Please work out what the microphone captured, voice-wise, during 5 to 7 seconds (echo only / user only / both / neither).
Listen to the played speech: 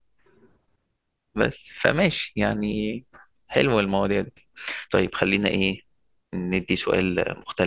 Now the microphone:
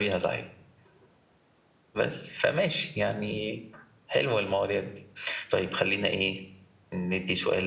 echo only